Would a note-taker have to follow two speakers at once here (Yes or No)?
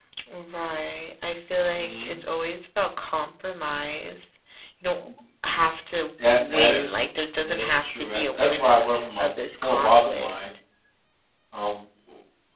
Yes